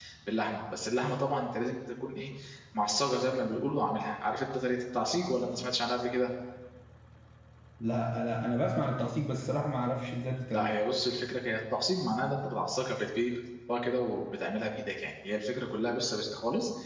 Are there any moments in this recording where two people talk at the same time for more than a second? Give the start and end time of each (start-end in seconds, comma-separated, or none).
none